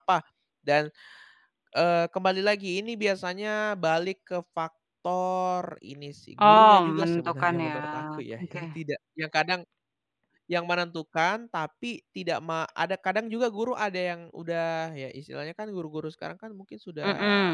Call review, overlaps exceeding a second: present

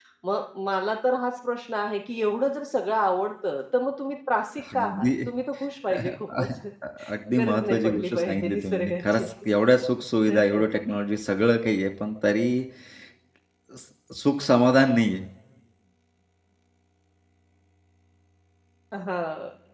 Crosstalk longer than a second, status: present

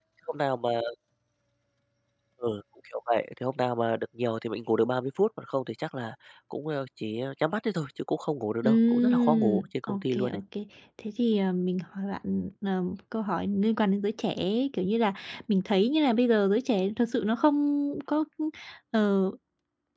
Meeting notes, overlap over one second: present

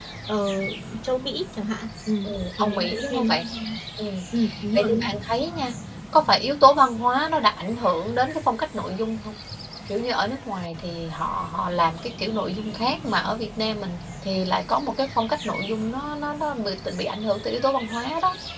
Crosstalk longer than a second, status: present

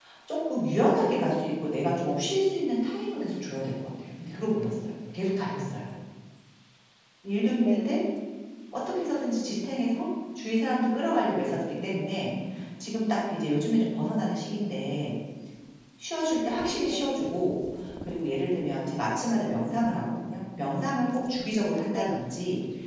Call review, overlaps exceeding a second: none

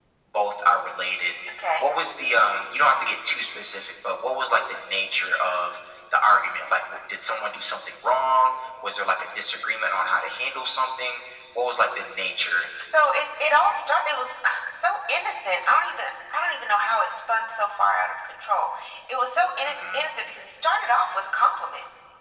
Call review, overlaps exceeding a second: none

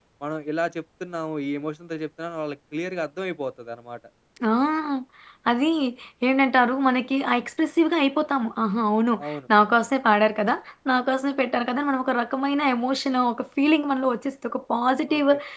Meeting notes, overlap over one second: none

